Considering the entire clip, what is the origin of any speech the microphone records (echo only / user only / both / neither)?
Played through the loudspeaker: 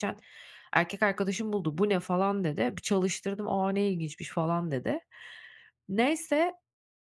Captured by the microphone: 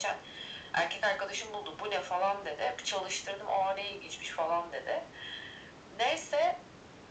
echo only